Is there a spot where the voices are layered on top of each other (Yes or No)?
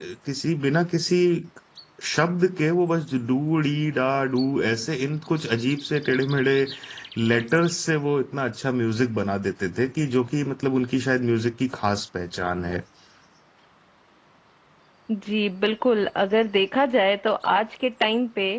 No